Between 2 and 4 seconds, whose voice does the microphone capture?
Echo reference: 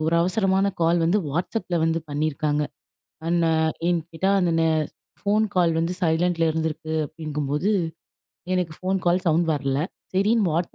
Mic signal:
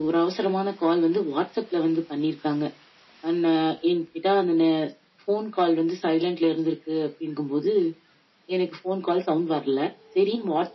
echo only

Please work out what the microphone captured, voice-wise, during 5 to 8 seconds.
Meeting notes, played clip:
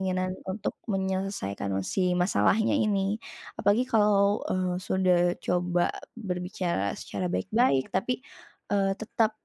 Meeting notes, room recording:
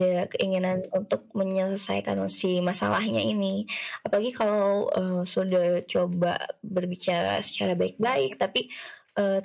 echo only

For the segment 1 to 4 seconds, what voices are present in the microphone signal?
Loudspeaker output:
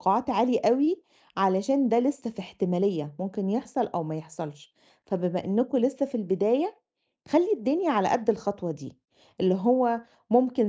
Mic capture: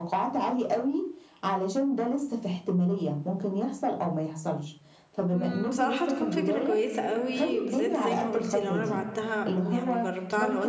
echo only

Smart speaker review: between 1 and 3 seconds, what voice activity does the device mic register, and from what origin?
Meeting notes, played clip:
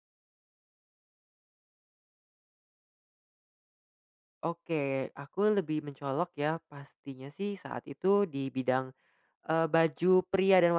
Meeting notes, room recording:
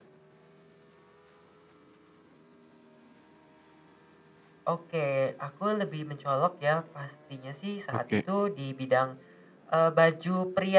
neither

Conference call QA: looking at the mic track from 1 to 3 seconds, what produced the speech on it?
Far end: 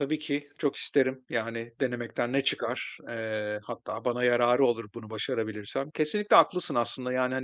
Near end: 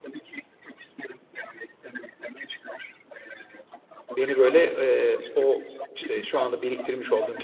echo only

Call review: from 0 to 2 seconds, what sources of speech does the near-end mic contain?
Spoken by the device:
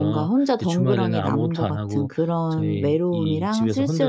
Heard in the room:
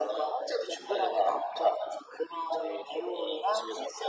echo only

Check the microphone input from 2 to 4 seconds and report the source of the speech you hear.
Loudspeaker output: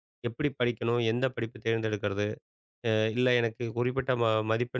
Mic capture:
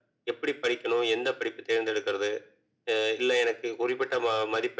echo only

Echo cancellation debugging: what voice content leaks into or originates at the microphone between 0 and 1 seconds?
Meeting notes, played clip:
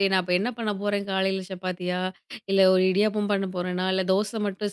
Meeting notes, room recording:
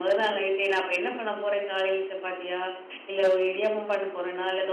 echo only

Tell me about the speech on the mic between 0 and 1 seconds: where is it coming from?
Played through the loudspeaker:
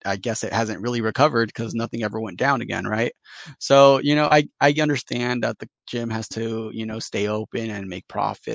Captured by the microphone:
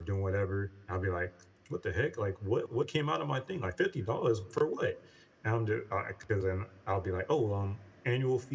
user only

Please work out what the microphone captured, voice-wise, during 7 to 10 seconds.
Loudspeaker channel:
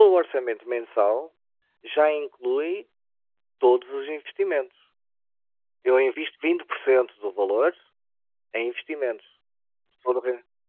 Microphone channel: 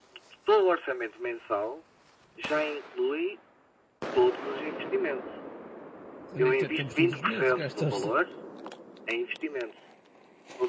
both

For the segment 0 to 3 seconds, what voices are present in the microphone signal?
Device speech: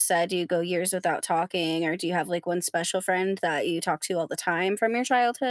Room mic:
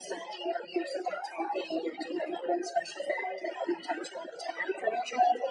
echo only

